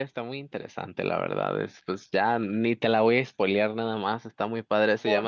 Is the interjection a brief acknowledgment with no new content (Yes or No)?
Yes